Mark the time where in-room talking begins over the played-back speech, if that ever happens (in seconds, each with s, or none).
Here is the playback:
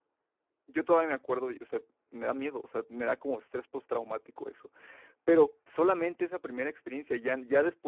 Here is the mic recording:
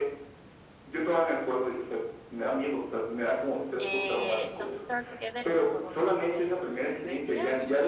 3.8 s